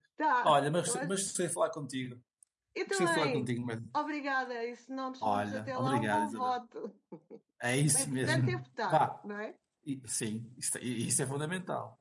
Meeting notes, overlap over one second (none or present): present